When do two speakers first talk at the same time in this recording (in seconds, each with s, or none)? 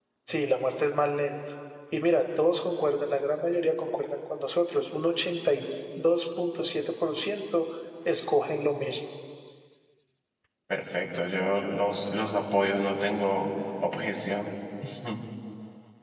none